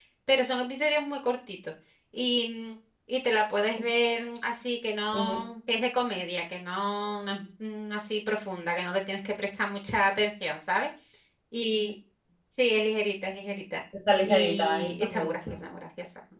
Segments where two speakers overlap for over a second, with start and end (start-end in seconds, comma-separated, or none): 14.2-15.7